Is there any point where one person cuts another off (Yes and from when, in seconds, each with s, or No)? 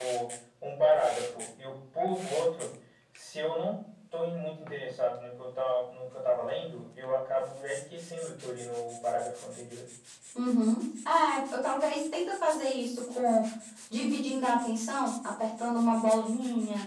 No